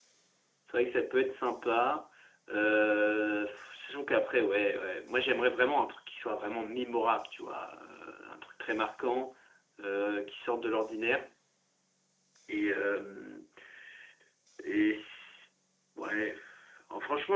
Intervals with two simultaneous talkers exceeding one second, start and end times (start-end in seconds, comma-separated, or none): none